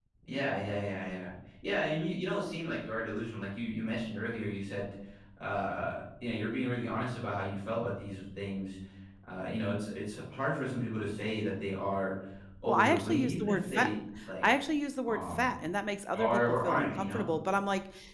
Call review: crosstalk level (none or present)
present